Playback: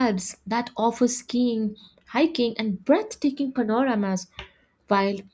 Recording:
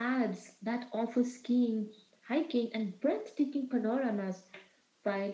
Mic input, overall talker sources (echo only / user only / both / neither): echo only